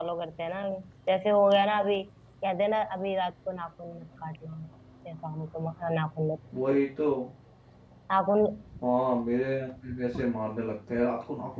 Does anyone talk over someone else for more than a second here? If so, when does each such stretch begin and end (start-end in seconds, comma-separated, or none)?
none